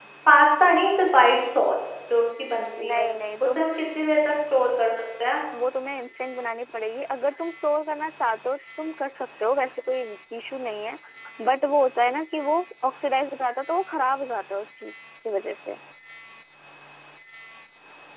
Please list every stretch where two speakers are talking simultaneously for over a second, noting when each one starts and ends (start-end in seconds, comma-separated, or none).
none